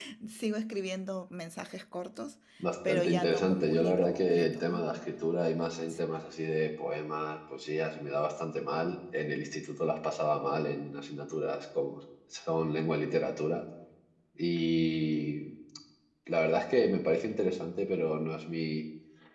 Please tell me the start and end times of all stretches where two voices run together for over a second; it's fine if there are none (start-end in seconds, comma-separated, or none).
2.9-4.8